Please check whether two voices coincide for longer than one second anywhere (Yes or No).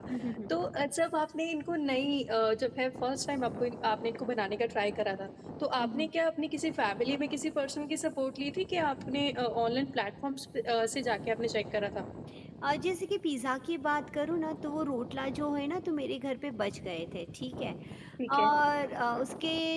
No